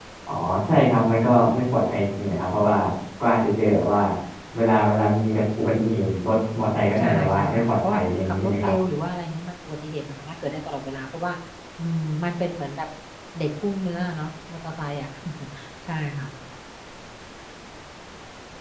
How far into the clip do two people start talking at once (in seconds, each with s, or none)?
7.0 s